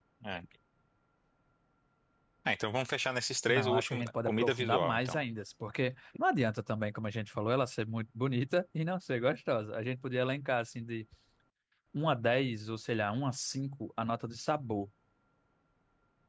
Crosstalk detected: Yes, from 3.5 s

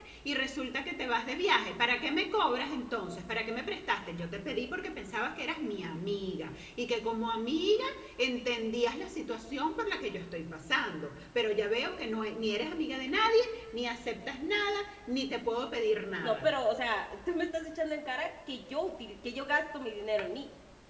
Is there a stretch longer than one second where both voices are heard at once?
No

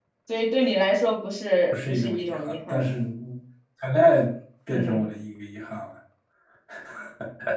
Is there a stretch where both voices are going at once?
Yes, from 1.7 s

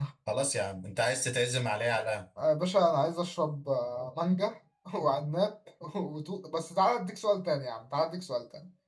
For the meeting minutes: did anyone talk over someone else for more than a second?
No

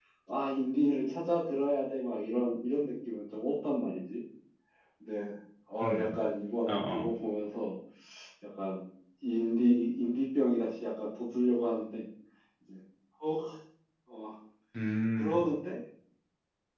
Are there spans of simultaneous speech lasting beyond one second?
No

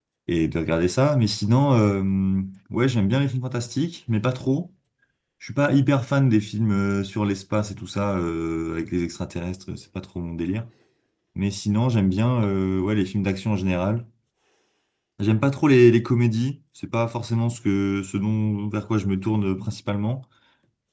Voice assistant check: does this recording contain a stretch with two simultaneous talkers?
No

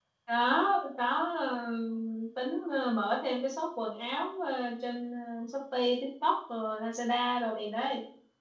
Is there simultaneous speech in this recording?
No

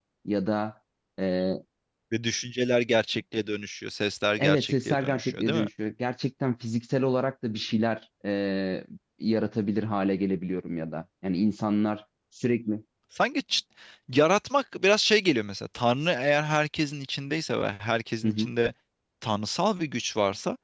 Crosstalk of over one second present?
Yes, from 4.4 s

